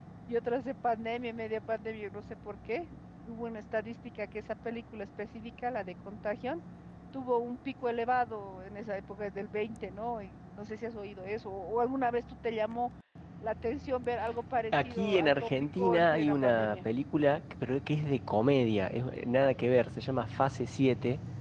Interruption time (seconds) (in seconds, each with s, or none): 14.7 s